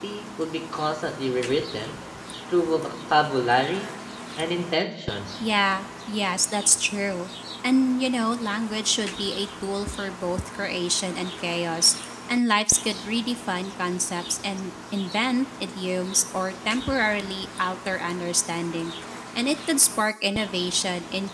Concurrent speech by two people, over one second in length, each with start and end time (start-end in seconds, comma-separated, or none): none